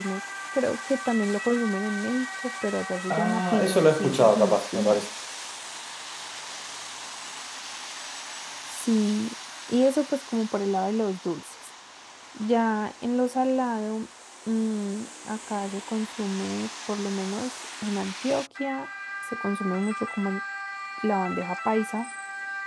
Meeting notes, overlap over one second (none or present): present